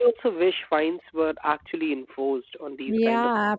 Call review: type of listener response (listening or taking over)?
taking over